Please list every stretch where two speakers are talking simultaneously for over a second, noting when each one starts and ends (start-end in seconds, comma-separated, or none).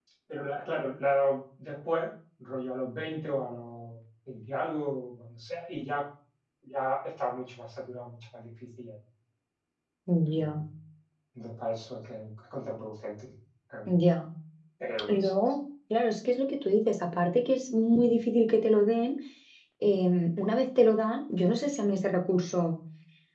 none